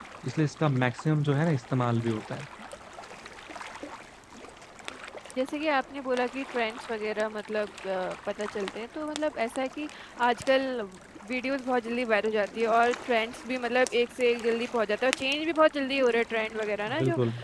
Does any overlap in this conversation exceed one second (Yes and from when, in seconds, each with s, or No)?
No